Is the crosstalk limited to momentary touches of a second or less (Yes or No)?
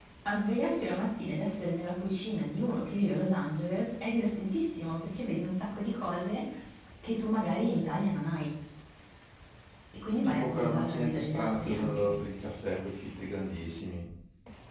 No